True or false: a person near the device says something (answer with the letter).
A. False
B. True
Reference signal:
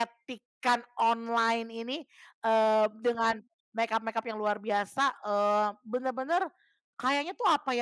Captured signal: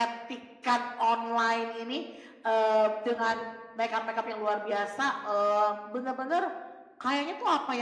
A